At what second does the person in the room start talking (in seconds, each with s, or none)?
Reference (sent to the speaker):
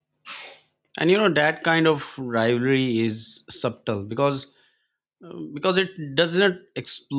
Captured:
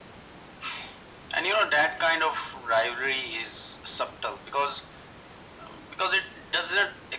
none